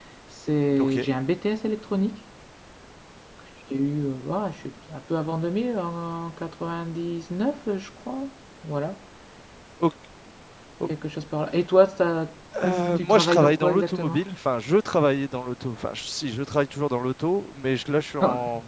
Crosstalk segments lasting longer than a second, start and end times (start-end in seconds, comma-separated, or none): 13.0-14.2